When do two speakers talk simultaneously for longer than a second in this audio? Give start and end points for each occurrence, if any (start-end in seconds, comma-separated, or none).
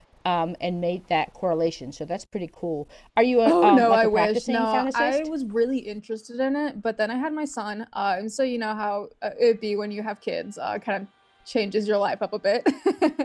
3.5-5.2